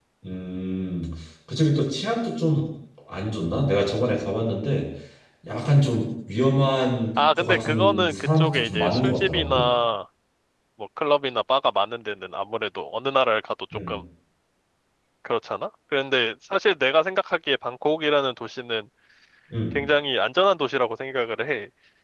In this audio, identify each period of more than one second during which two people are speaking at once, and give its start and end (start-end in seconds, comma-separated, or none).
7.4-9.6